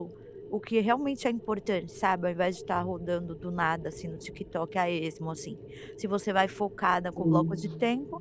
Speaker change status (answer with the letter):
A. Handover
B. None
B